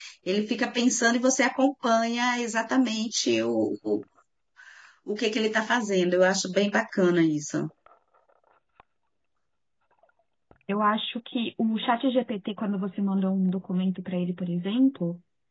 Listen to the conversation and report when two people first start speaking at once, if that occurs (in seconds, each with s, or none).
none